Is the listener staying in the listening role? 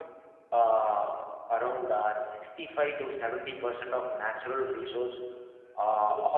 Yes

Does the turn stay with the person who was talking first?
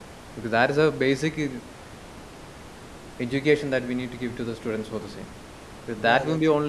Yes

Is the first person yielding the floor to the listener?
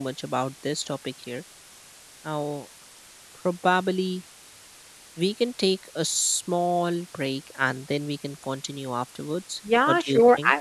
Yes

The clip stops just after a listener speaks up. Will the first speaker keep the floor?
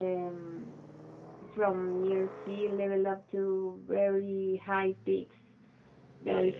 No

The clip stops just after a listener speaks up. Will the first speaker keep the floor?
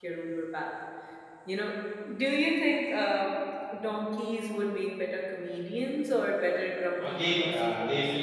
No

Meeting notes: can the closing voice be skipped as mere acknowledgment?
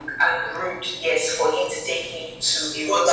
No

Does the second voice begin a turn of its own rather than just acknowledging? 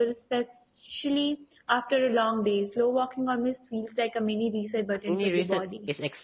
Yes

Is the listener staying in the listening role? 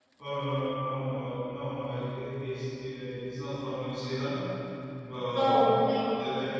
Yes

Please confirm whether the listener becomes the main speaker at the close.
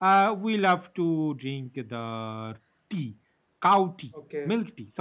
Yes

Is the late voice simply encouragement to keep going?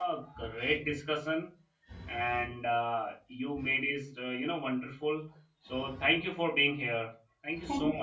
No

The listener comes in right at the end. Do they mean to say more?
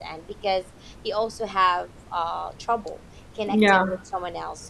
No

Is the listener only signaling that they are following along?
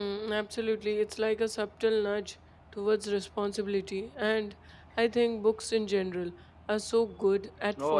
No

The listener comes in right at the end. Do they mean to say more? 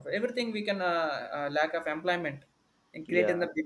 No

